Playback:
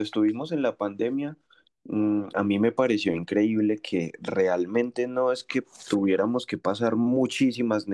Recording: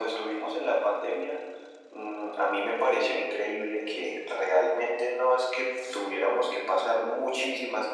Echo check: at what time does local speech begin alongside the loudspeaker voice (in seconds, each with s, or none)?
none